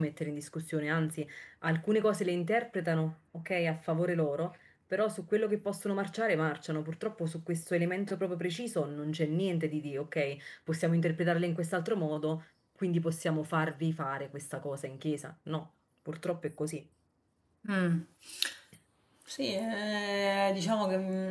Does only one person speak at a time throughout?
Yes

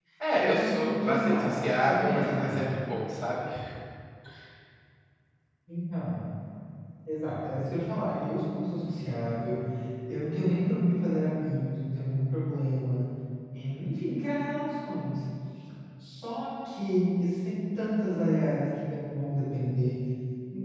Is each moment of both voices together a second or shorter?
No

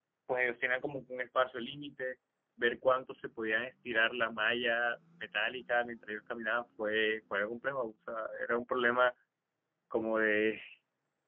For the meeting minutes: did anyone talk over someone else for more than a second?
No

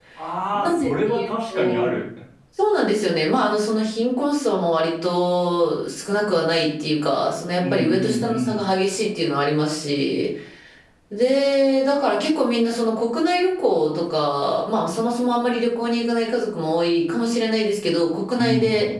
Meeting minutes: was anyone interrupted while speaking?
Yes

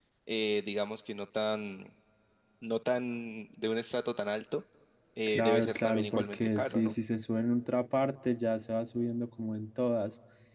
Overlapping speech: Yes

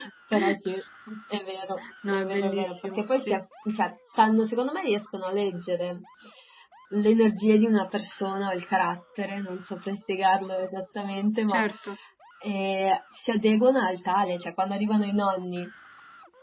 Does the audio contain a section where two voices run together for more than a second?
Yes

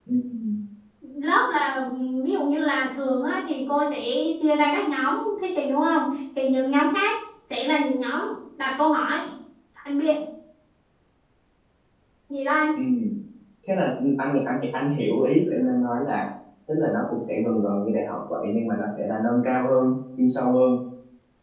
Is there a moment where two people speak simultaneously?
No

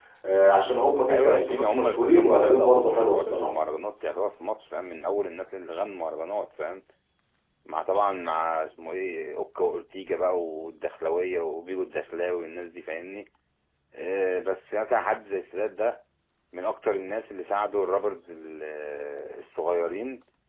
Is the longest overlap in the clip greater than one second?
Yes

